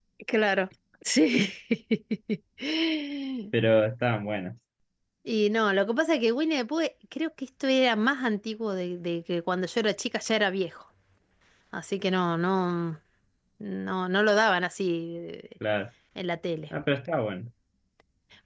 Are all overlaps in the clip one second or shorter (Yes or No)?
Yes